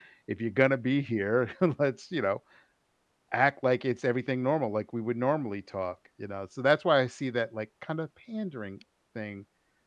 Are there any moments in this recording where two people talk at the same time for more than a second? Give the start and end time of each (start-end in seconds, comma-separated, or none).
none